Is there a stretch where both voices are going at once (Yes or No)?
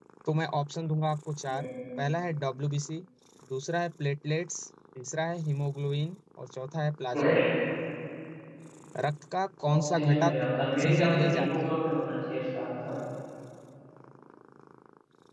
Yes